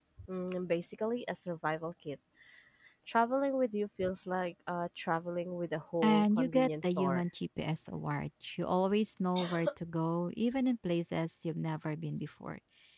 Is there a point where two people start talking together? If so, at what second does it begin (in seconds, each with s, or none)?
6.0 s